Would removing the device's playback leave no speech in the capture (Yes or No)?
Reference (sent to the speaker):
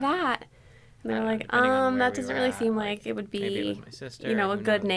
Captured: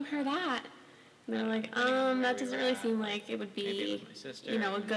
Yes